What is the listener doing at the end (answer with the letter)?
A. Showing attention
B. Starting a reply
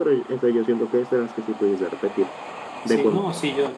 B